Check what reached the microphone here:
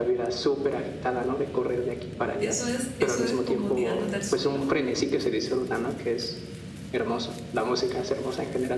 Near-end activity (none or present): present